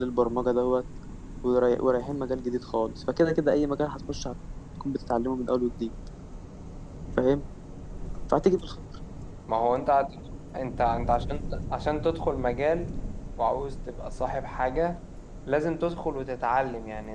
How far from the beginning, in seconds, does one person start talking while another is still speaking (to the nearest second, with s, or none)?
none